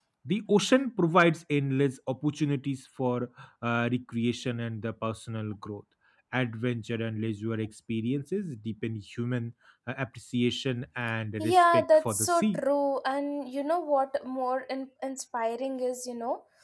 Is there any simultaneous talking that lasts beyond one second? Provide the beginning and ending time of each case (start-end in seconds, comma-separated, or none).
11.4-12.6